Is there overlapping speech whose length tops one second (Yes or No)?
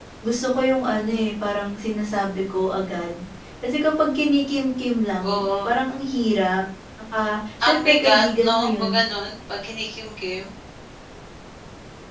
Yes